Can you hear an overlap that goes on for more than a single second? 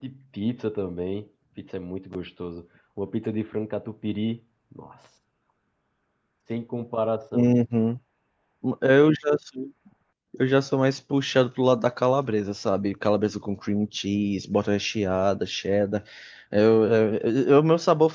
No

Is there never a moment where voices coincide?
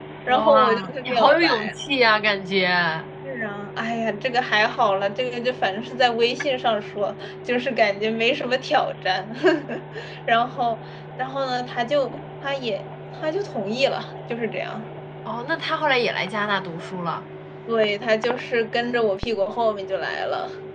No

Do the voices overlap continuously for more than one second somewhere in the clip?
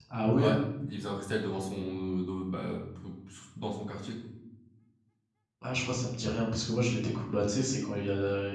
No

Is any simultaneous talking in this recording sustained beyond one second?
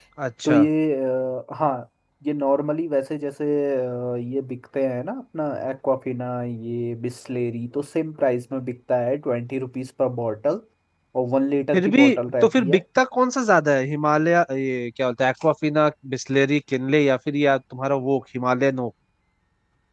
No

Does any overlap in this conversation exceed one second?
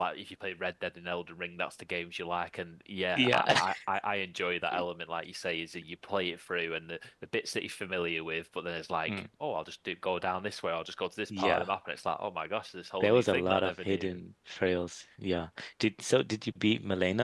Yes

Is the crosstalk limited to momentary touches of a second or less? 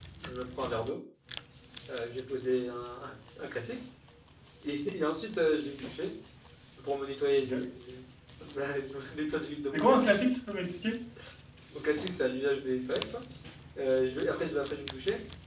Yes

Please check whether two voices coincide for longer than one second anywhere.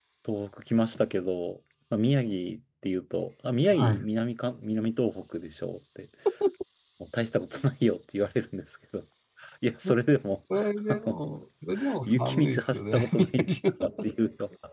Yes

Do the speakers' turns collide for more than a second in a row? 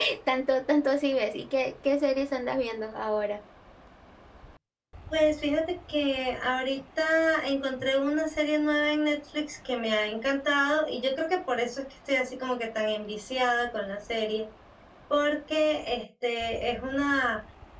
No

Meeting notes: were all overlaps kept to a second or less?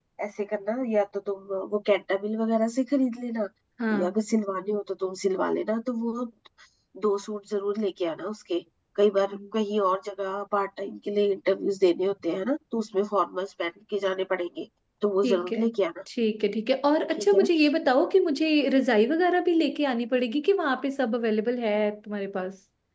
Yes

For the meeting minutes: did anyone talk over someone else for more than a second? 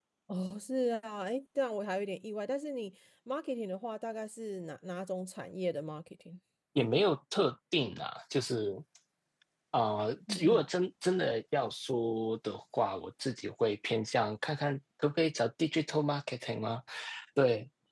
No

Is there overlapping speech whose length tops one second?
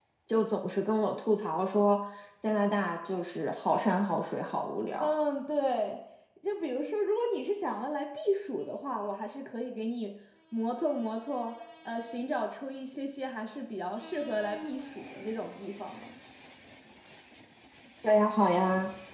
No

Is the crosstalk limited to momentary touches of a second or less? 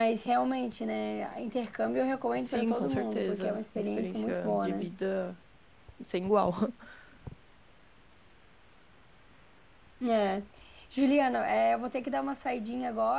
No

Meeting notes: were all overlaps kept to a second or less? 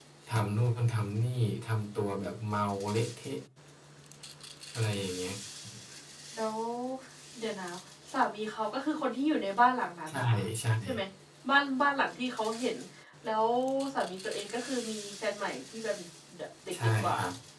Yes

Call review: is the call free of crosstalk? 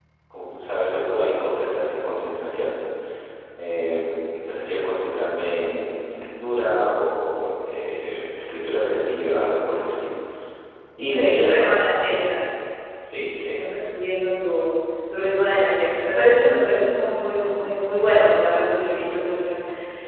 No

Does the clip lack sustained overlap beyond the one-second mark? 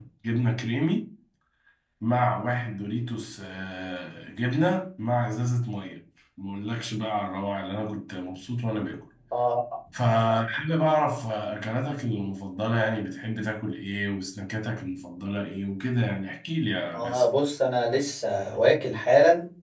Yes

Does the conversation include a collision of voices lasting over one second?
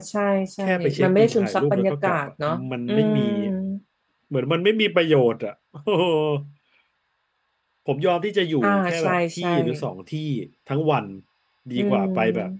Yes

